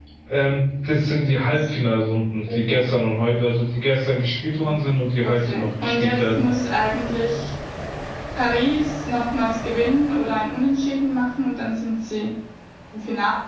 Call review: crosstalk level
present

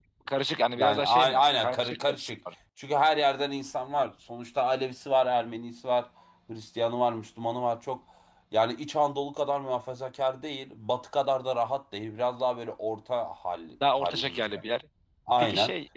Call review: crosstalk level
present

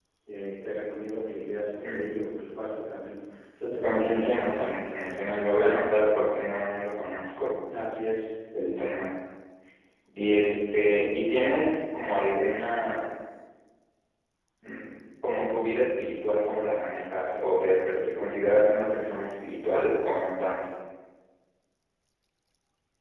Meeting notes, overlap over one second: present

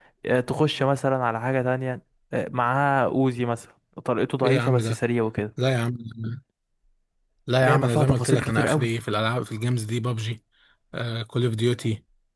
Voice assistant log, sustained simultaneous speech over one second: present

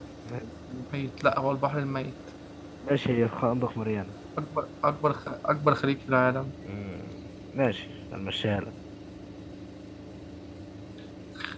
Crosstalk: none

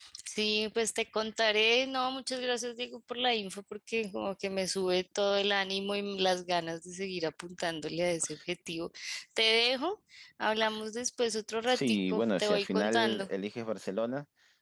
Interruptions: present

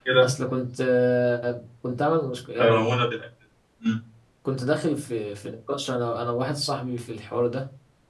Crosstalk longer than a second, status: none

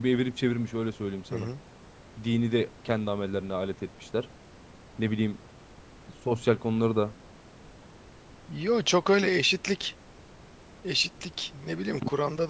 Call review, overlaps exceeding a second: none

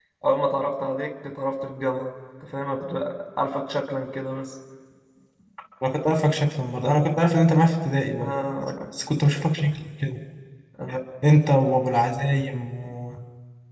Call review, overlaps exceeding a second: none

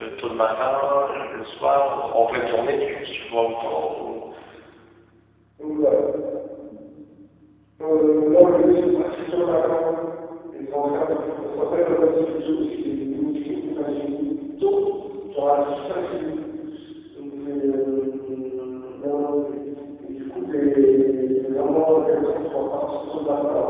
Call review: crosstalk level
none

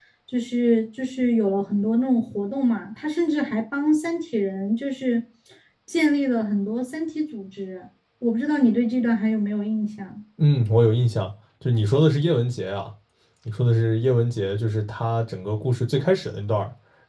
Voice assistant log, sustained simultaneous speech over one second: none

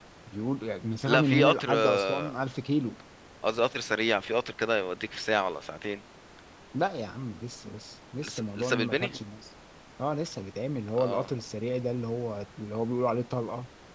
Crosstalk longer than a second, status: present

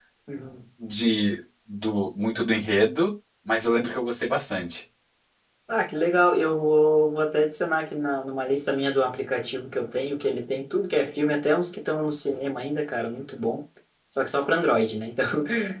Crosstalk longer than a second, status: none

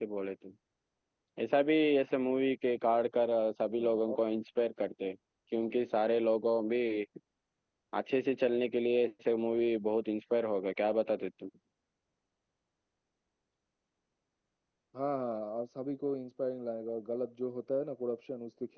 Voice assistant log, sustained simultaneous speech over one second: none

